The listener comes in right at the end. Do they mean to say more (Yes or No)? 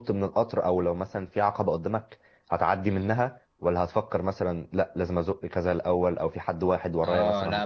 Yes